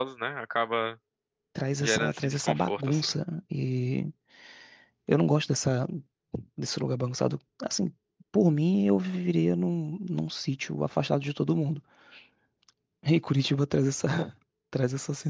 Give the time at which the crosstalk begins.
2 s

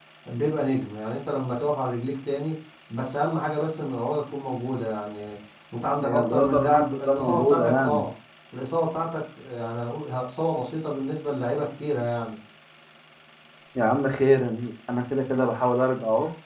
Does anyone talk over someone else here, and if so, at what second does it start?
6 s

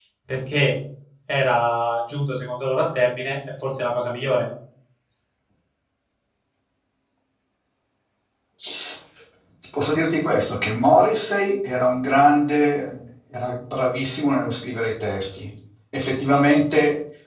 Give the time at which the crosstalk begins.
none

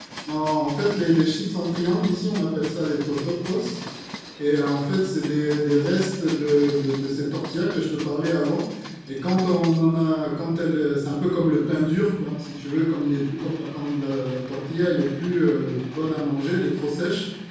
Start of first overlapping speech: none

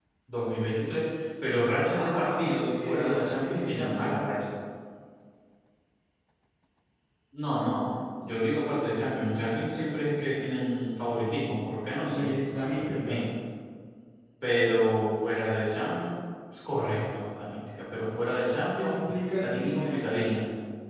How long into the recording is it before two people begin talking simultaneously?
2 s

